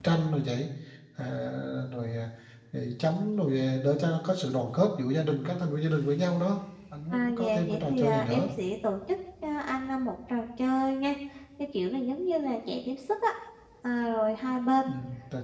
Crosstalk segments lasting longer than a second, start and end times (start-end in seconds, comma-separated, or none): 7.1-8.5